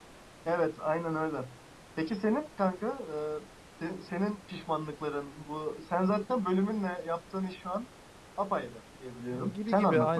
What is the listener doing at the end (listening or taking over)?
taking over